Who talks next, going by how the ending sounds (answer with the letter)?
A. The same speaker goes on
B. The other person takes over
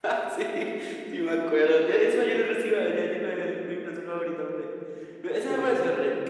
A